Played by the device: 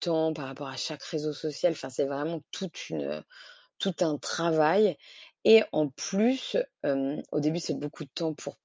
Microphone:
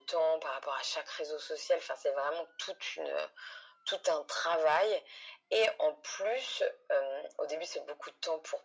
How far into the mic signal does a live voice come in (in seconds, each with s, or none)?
none